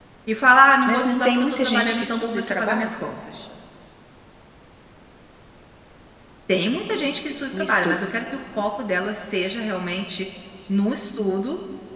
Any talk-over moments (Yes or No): Yes